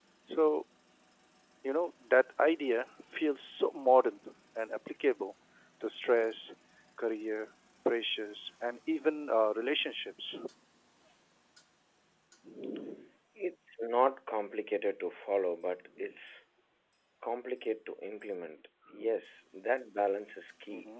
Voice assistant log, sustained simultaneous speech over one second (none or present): none